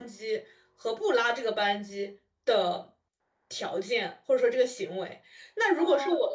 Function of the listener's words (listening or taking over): listening